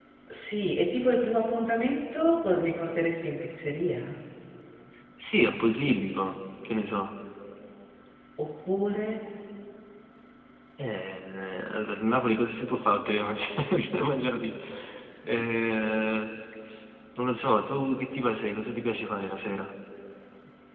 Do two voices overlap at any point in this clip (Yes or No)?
No